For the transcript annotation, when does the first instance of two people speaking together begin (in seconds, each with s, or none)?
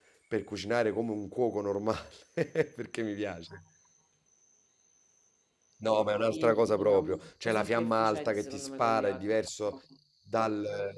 6.3 s